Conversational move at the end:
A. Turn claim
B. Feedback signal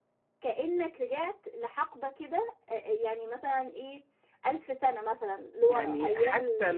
A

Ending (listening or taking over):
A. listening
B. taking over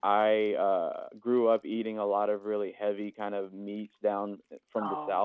A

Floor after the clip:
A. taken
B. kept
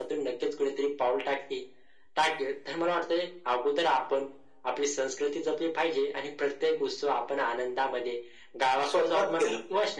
B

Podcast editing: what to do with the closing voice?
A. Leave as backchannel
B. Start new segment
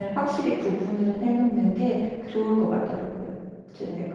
B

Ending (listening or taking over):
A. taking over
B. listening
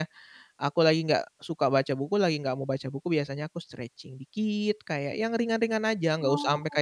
B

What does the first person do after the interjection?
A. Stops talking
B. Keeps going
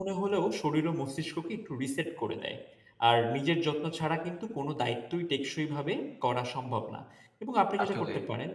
B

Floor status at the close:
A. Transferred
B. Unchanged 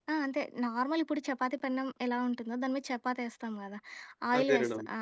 B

